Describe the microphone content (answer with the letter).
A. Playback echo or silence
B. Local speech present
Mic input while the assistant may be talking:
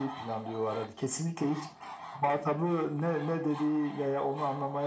A